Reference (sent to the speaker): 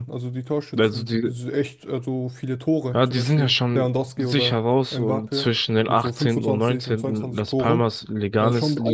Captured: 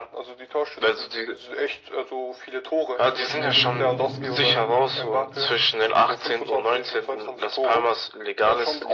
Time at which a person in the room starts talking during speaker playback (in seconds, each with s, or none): 3.3 s